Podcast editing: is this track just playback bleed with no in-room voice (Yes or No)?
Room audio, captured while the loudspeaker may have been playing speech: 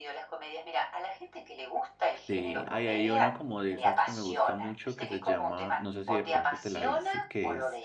No